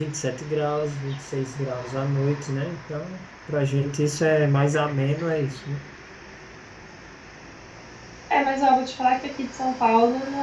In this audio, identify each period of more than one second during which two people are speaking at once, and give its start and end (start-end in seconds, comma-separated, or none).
none